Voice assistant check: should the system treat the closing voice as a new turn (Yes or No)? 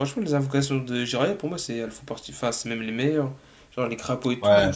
No